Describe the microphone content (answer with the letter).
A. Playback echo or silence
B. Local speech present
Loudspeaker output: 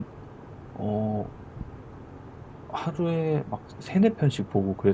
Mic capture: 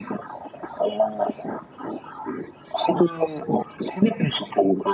A